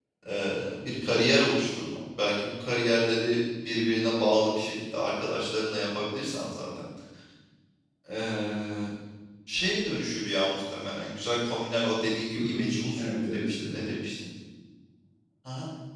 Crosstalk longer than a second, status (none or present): present